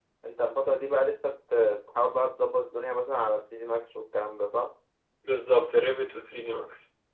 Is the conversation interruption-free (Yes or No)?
Yes